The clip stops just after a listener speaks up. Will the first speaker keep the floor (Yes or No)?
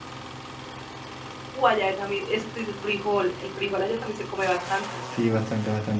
No